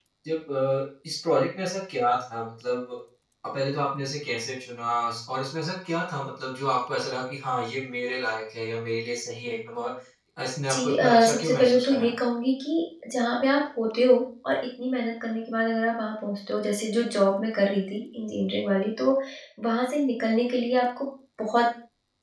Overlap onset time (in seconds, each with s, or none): 10.7 s